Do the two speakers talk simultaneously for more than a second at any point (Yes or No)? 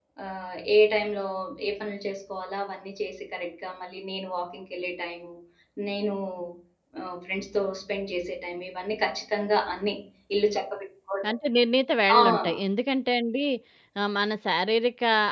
No